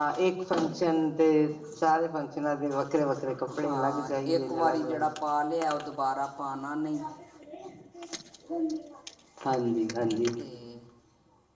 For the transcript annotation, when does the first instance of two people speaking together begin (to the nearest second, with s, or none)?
3 s